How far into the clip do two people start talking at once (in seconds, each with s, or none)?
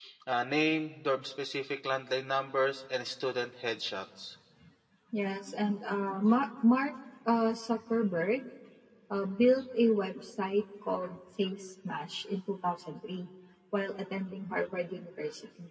none